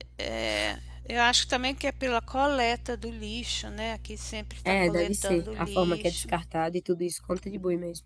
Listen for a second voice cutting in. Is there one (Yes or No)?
Yes